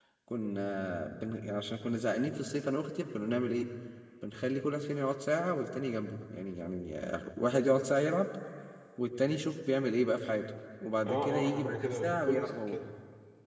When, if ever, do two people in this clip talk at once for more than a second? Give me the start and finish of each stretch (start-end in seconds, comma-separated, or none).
11.1-12.8